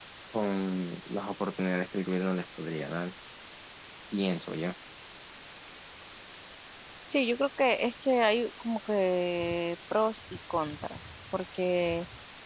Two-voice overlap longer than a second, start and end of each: none

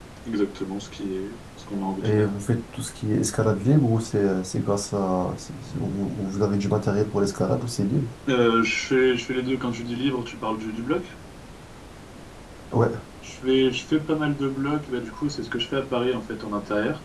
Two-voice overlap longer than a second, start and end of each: none

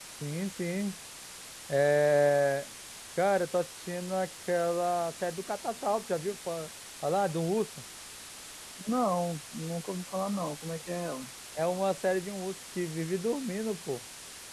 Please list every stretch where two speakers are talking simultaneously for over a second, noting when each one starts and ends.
none

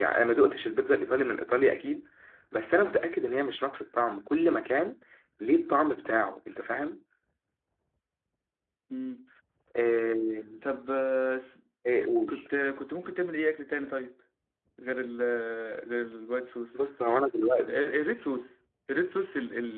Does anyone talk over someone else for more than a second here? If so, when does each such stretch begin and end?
none

